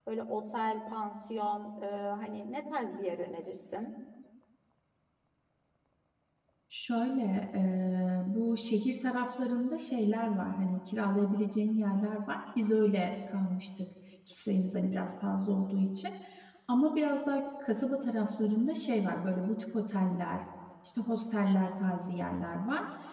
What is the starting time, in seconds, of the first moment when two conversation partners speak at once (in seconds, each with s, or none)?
none